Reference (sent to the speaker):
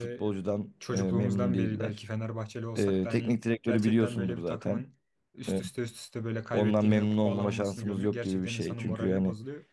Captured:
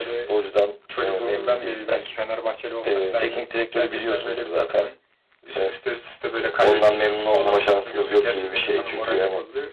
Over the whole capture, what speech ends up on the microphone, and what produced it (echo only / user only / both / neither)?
echo only